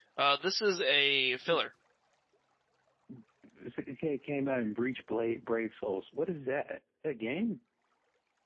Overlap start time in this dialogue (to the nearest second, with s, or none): none